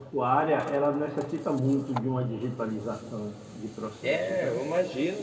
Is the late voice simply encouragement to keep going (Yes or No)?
No